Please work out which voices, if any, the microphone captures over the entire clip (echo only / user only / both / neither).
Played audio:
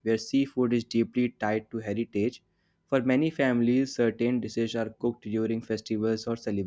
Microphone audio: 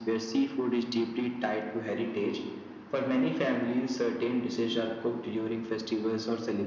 echo only